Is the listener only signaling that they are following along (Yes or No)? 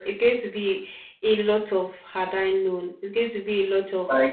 No